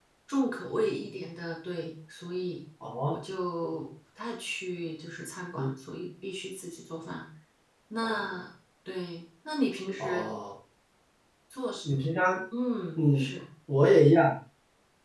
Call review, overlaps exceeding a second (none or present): none